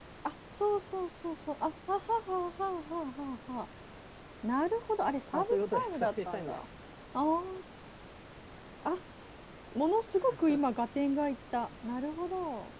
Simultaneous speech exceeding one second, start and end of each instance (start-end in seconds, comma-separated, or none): 5.3-6.7